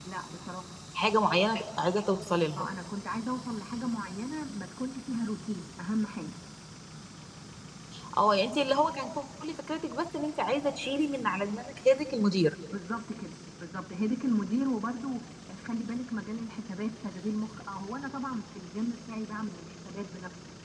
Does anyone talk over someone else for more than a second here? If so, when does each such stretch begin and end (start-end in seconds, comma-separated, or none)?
none